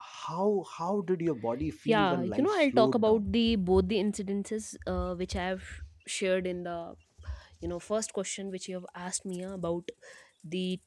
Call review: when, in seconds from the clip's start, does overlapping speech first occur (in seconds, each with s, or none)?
1.9 s